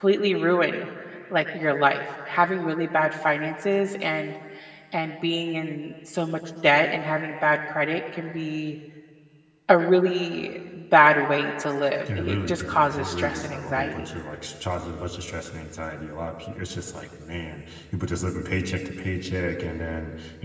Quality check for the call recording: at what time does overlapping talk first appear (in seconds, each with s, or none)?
12.1 s